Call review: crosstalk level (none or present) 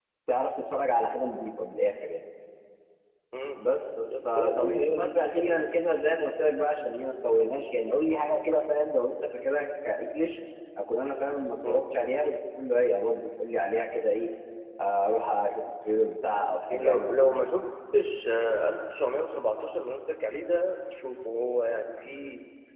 present